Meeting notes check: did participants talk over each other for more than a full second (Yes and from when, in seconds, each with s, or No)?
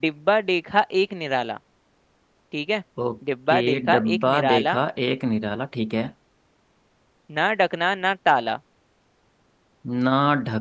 Yes, from 3.5 s